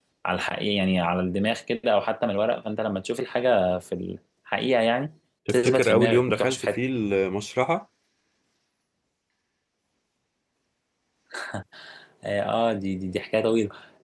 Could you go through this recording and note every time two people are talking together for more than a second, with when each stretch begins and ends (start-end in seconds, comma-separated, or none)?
5.5-6.8